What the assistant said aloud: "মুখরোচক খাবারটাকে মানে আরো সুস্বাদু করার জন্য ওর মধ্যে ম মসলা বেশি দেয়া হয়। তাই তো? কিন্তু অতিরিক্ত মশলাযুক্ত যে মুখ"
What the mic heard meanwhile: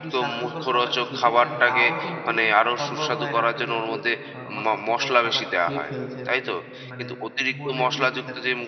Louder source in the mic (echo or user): echo